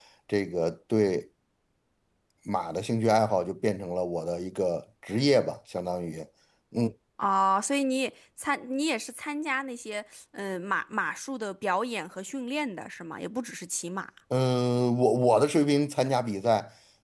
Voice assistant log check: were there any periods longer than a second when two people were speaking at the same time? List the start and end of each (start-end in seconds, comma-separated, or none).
none